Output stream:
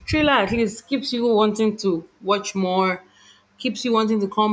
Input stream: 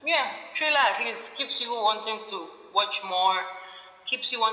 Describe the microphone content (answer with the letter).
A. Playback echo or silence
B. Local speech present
A